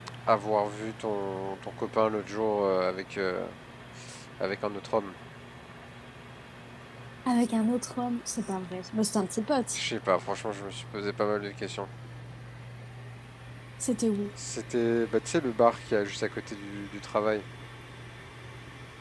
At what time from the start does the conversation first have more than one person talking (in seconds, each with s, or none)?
none